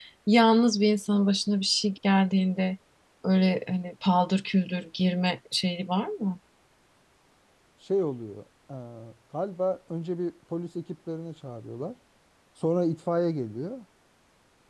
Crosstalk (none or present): none